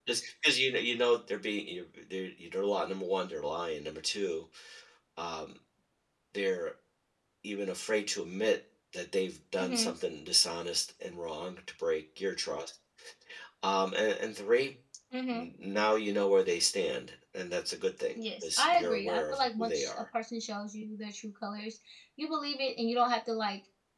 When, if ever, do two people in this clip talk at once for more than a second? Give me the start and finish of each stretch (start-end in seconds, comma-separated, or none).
18.1-20.0